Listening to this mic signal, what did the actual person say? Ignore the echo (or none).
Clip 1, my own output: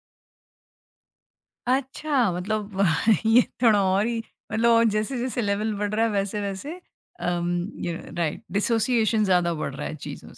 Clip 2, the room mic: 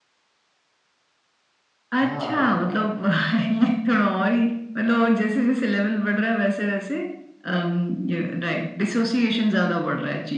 हाँ,